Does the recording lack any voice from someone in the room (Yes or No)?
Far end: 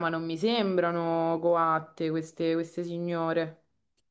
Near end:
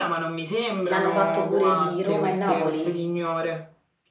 No